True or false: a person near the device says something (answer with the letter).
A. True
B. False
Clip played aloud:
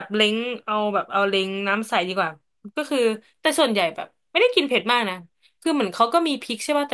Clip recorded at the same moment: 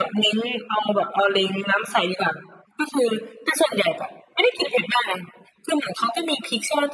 B